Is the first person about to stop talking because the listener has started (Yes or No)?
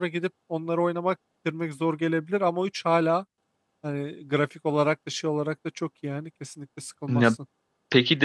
Yes